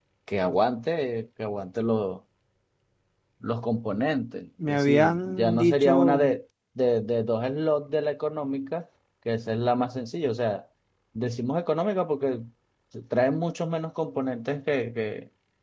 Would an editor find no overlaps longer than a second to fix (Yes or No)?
No